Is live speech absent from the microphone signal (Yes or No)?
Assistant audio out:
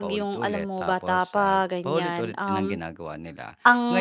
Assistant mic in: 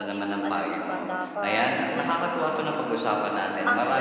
No